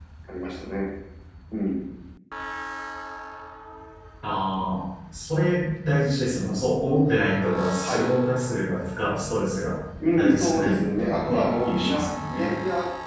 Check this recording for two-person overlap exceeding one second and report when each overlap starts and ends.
10.2-12.5

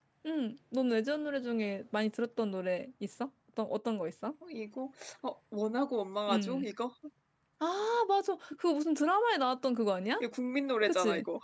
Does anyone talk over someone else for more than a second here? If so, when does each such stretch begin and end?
none

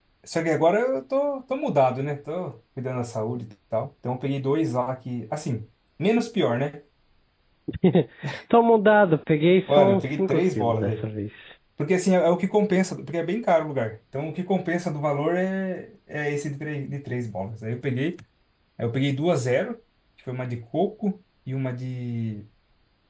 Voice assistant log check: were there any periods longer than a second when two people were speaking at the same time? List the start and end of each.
9.7-11.1

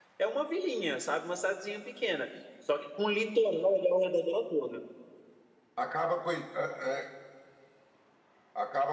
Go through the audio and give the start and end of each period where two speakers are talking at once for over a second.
none

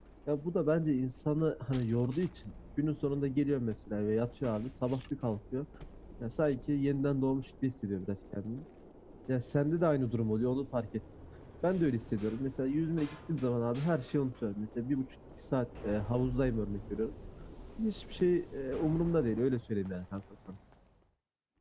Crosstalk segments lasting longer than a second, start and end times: none

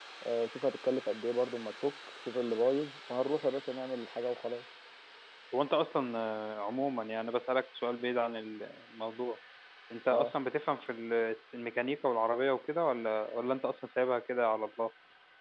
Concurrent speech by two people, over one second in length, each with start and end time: none

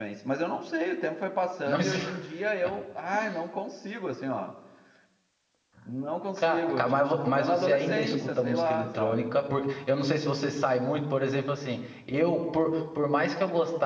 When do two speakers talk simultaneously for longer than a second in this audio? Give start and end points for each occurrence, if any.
6.4-9.2

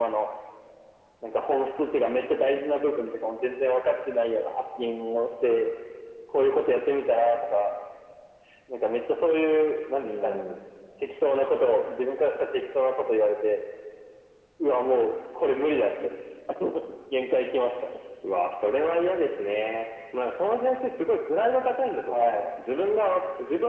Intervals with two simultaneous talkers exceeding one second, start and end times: none

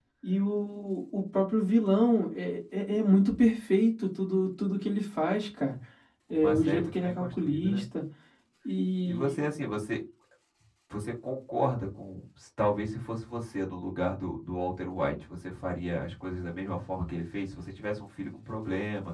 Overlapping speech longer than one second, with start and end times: 6.3-7.8

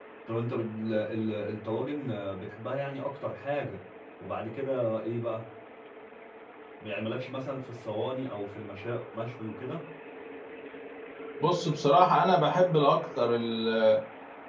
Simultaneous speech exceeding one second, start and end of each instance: none

